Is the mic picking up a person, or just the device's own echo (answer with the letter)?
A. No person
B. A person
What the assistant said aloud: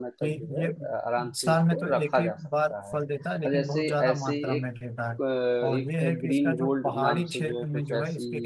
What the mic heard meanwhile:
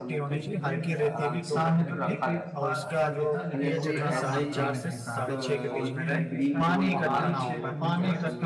B